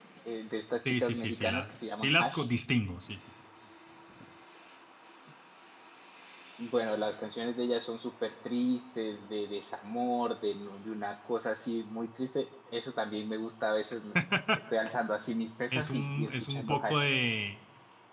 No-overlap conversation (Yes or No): No